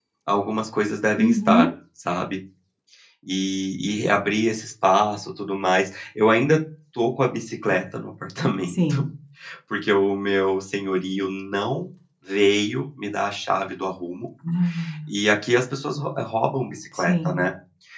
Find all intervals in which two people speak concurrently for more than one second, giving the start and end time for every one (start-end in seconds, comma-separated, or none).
none